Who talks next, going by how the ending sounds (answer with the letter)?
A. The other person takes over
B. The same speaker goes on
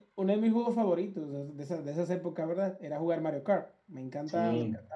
B